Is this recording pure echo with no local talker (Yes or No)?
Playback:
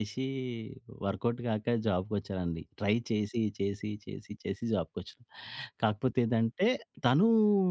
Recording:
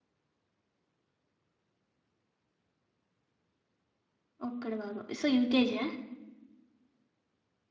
No